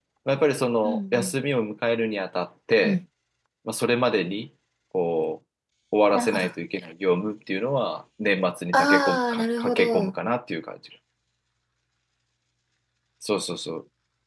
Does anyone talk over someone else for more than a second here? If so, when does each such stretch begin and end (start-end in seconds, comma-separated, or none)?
8.7-10.1